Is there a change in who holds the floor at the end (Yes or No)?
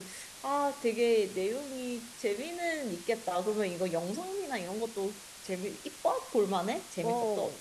Yes